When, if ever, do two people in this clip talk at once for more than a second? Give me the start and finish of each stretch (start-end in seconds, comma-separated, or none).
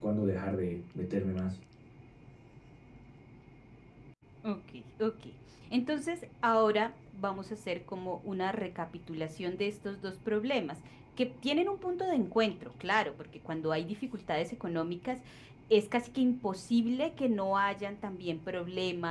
none